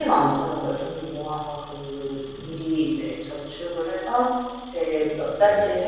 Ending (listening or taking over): listening